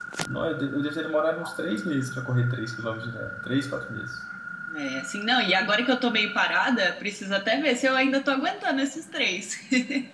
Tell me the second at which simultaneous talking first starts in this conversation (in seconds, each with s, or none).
none